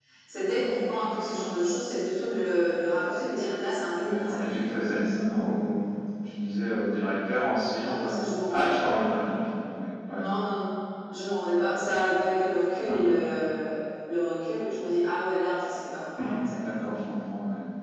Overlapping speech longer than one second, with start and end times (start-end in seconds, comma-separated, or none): none